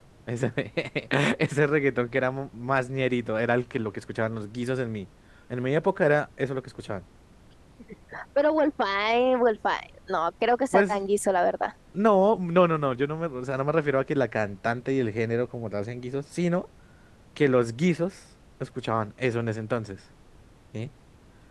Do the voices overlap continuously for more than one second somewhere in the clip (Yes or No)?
No